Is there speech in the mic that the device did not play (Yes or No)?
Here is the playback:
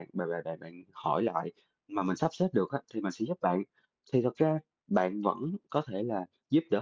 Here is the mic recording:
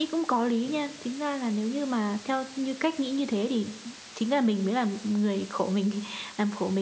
Yes